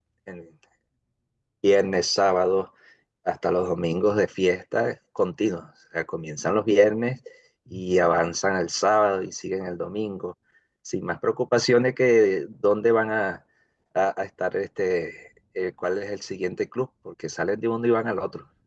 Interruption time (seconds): none

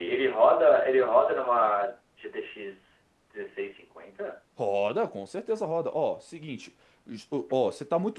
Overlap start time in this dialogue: none

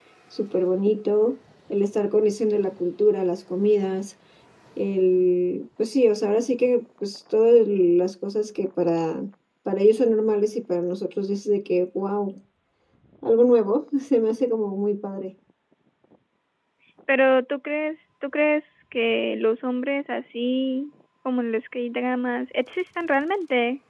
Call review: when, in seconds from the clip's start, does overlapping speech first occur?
none

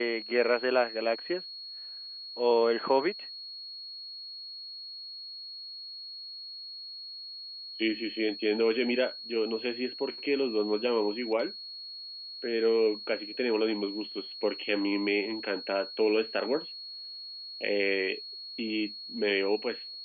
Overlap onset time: none

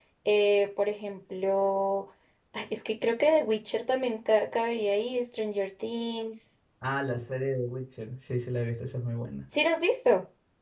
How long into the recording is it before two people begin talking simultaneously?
none

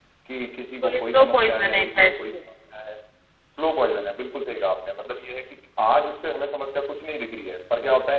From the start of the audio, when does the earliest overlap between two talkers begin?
0.8 s

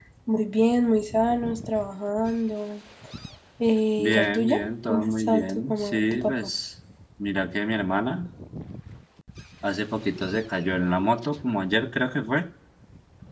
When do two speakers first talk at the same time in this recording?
4.0 s

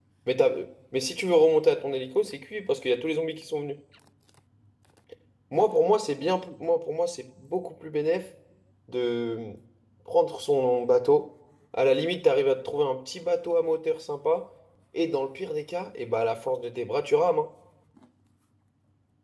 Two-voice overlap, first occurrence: none

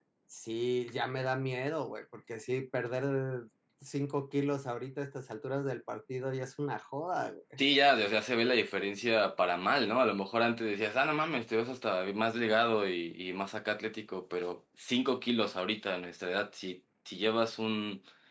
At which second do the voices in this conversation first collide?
none

